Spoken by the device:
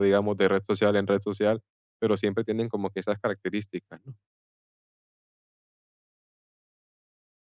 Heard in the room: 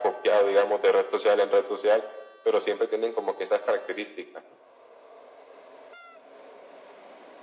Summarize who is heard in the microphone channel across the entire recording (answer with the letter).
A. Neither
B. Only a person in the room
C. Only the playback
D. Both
C